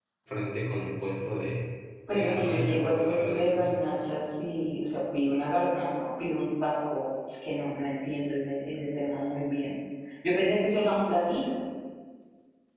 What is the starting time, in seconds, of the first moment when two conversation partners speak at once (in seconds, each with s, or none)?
2.1 s